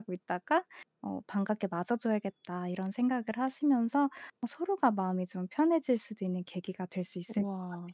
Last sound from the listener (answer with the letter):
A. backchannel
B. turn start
B